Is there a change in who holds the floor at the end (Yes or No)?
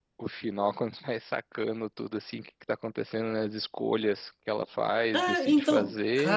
Yes